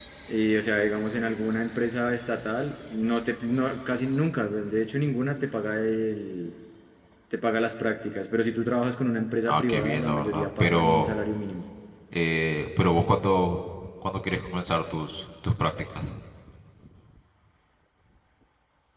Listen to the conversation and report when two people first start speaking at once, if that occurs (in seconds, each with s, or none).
9.5 s